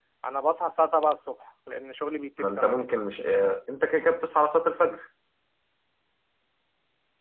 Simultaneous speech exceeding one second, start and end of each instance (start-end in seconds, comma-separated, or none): none